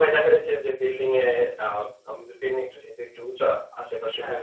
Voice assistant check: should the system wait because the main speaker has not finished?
Yes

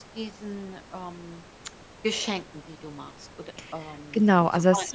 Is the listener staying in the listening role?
No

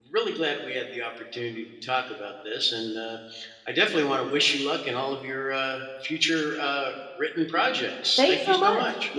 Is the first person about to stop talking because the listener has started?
Yes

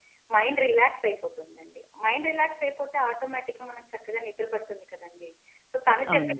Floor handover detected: No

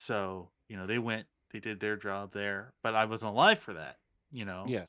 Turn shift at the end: No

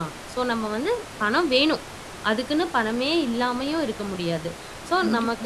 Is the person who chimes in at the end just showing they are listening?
Yes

